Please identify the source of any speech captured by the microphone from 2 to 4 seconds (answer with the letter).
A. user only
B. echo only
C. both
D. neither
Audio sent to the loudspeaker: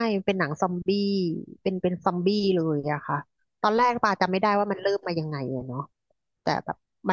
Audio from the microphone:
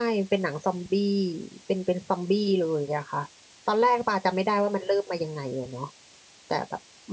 B